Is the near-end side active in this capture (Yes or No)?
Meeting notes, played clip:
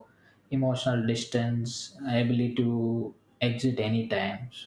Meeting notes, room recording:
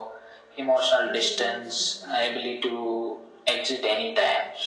Yes